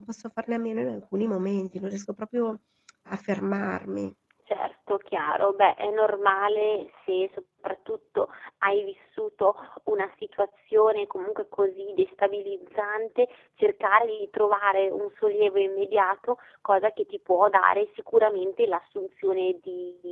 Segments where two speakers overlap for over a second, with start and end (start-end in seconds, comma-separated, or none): none